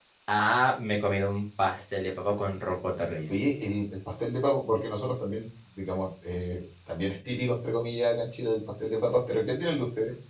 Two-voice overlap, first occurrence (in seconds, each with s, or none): none